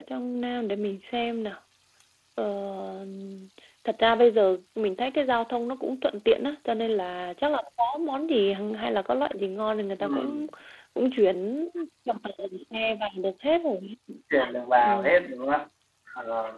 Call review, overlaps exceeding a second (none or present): none